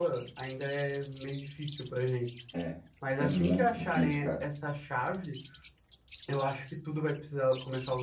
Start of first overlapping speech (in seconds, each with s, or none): 3.2 s